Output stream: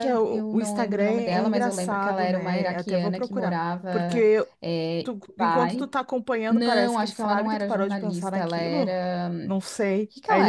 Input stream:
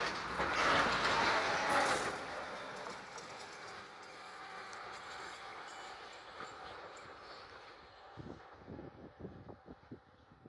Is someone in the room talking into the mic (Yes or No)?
No